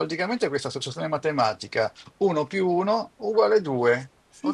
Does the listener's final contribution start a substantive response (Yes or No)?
Yes